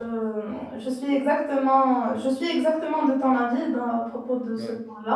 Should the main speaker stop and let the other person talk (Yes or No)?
No